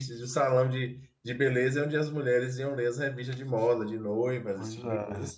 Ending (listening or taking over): taking over